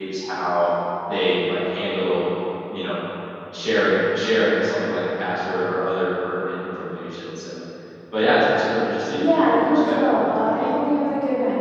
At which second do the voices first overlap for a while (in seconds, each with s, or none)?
9.1 s